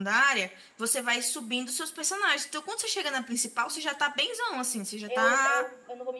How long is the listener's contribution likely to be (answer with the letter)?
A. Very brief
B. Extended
B